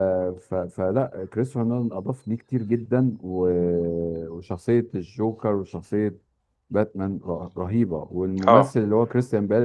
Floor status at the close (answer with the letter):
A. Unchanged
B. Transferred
A